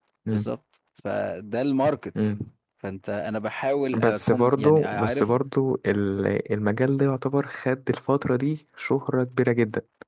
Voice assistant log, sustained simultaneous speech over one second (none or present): present